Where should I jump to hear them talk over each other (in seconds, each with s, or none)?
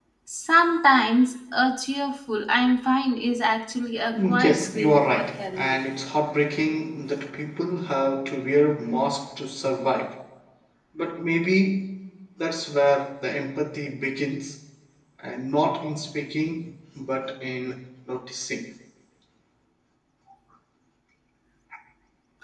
4.1 s